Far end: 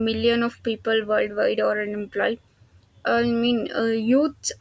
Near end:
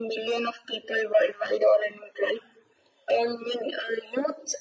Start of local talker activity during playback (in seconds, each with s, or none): none